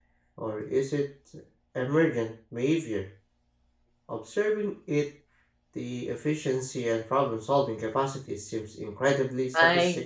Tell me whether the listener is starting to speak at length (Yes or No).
Yes